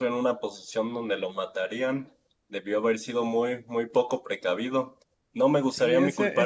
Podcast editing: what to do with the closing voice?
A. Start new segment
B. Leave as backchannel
A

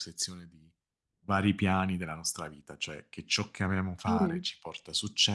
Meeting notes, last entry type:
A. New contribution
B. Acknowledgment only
B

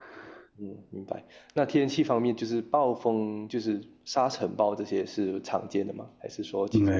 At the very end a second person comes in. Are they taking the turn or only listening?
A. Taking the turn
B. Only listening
A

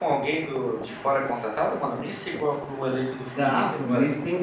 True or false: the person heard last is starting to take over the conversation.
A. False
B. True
B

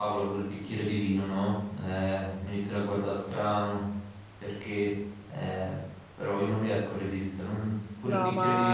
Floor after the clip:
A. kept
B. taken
B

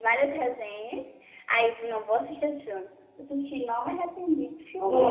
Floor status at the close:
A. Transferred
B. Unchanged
A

